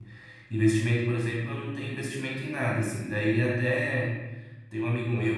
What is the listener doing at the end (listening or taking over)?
listening